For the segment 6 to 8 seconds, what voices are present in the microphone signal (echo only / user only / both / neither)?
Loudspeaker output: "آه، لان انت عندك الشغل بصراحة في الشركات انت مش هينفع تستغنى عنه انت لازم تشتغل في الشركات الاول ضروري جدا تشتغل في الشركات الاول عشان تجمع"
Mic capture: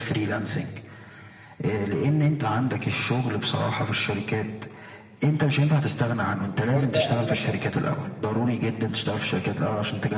both